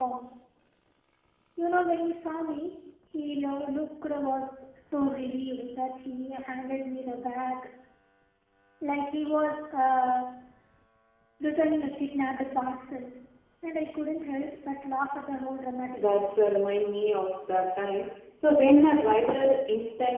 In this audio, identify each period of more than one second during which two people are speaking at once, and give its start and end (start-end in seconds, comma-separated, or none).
none